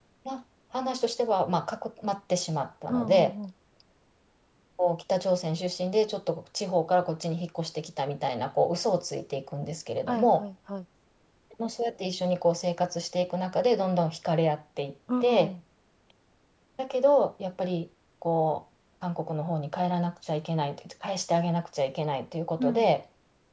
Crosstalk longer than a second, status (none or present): none